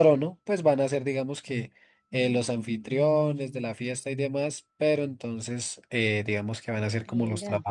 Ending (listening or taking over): listening